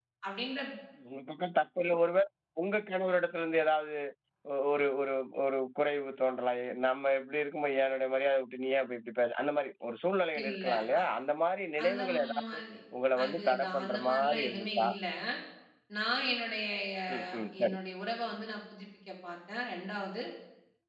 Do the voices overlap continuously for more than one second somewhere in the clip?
Yes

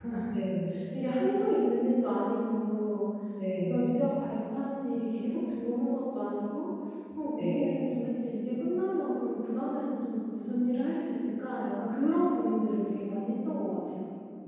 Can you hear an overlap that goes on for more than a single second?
No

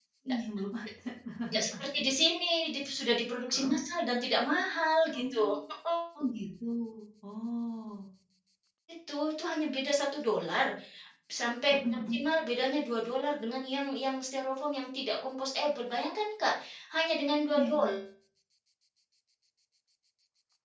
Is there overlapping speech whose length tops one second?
No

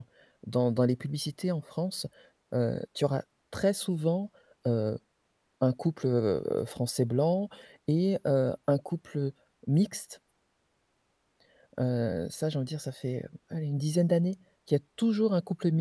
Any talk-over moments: No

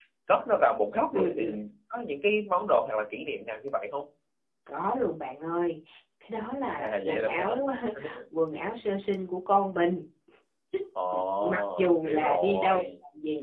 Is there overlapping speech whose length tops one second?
Yes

